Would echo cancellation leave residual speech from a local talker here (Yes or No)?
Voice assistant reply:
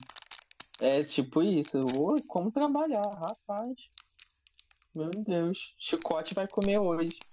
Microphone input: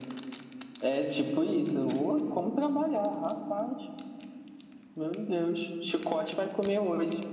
No